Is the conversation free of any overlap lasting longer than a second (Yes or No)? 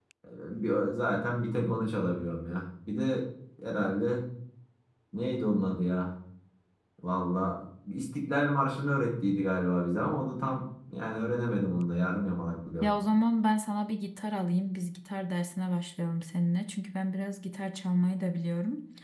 Yes